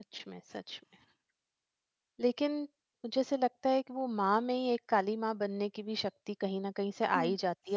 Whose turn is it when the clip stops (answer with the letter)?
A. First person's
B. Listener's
A